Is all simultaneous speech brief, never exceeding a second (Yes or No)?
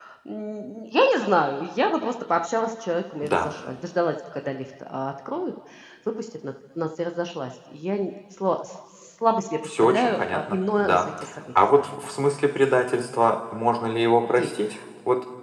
No